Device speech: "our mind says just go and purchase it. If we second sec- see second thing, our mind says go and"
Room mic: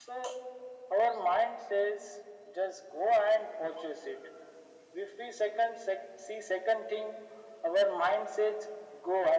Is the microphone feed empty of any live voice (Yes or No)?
Yes